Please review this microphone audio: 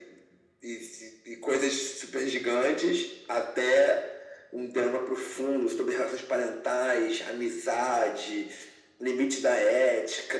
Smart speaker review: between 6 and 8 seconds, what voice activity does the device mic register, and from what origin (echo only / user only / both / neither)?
echo only